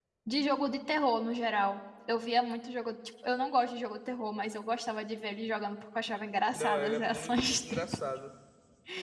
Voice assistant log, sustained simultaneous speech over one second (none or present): present